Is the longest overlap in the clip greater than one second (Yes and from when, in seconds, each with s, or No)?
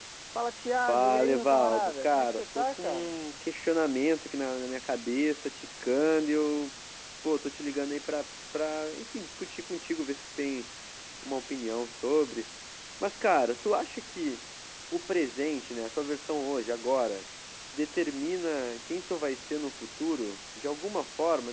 Yes, from 0.9 s